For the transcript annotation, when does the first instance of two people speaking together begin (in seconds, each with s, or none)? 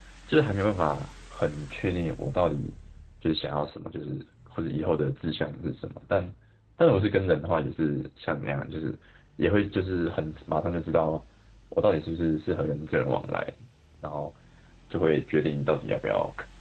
none